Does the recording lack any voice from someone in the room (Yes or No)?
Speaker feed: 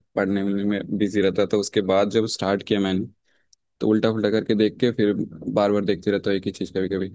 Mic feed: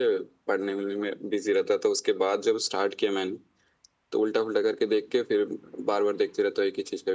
Yes